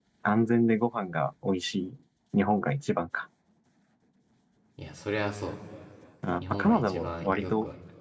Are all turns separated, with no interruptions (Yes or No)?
No